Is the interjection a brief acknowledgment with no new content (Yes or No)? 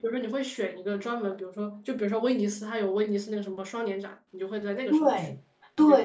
No